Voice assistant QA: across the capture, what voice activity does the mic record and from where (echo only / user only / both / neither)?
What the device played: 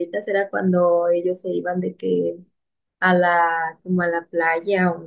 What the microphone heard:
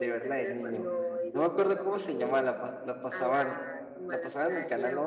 both